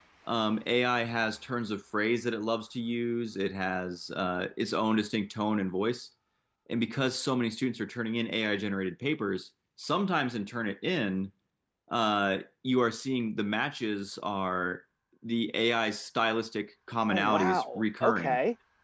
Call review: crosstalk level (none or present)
present